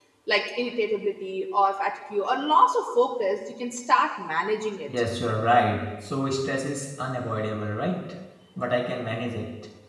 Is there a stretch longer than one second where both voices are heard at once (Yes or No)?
No